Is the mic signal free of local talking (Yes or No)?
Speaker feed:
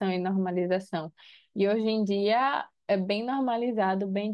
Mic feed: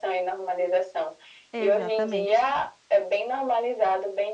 No